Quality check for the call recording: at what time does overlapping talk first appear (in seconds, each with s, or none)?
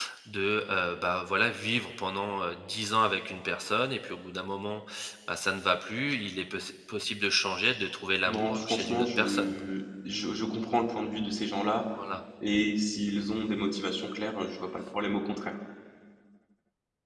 8.3 s